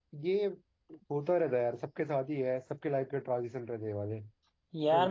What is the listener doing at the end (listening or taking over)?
taking over